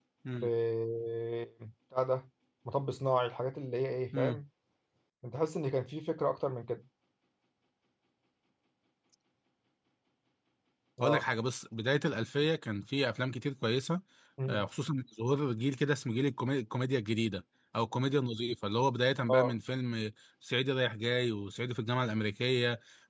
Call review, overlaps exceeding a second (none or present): none